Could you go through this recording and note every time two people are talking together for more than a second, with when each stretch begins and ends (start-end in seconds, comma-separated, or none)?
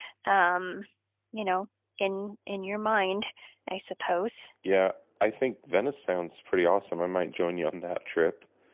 none